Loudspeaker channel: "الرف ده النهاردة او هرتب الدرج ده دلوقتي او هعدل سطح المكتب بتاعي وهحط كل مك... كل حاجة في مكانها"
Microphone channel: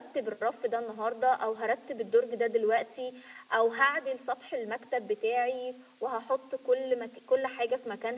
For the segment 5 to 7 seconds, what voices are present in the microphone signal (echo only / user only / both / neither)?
echo only